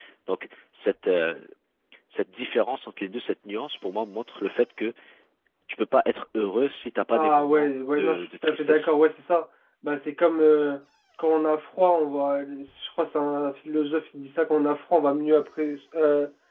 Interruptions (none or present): present